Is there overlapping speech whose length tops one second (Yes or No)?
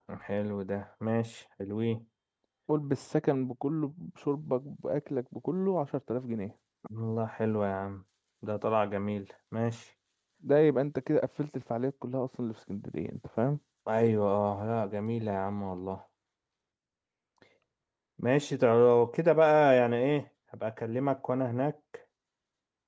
No